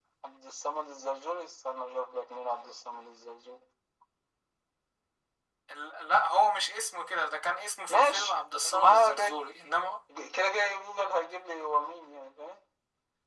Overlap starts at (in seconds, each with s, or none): 7.9 s